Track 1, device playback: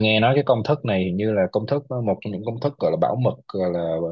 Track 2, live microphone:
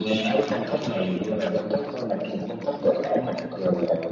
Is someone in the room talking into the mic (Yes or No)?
No